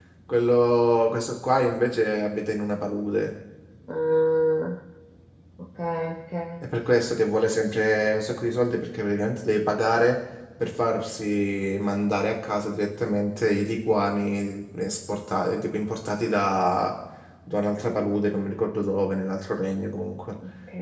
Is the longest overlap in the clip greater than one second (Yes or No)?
No